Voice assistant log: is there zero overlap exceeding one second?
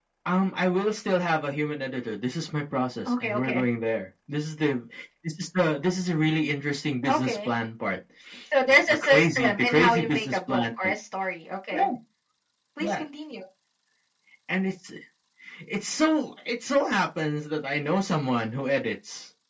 No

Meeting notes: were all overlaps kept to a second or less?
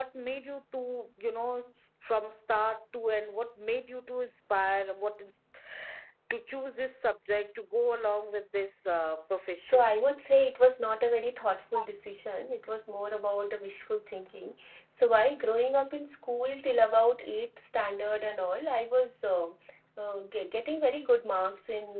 Yes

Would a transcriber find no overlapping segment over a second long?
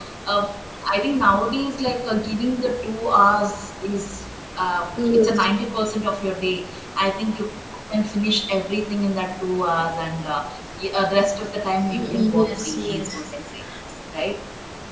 No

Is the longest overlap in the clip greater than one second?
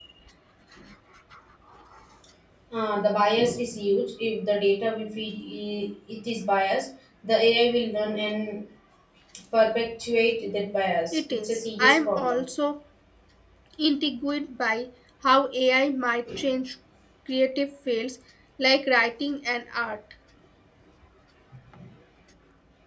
Yes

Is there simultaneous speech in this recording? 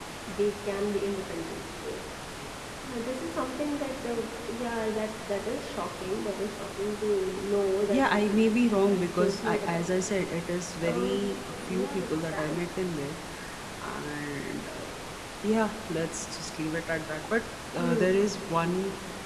Yes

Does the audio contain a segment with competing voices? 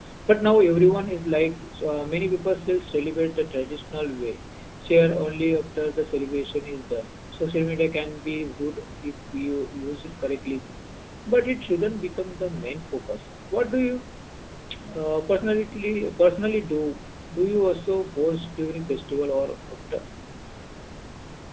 No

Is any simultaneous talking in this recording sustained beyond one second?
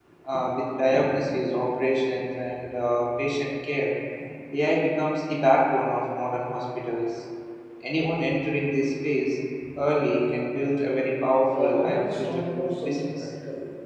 Yes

